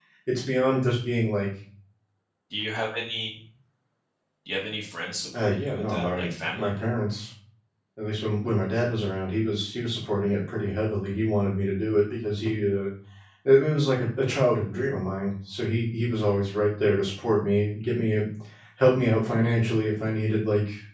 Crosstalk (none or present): present